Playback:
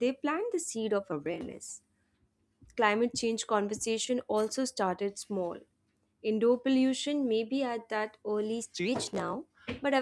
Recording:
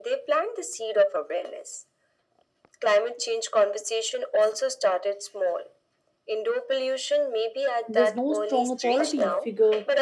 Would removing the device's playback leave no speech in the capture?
No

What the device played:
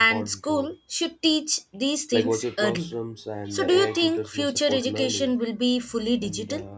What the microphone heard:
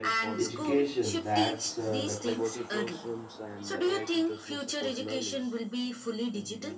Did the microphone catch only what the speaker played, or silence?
No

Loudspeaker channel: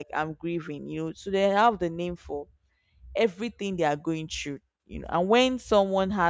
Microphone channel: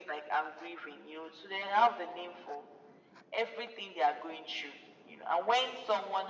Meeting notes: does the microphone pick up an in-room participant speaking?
No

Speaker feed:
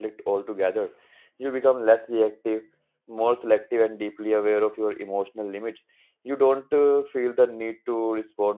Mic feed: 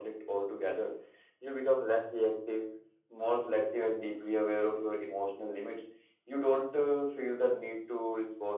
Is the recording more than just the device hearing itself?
No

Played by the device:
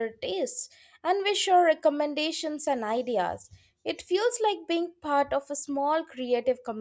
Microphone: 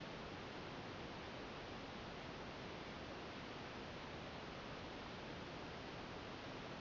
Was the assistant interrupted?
No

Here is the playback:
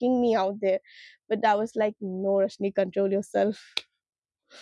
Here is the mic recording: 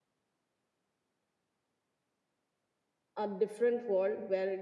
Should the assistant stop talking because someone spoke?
Yes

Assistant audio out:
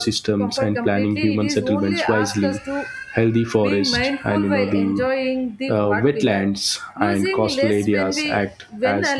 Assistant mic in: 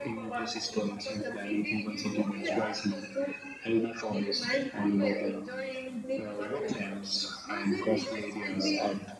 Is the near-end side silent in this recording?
Yes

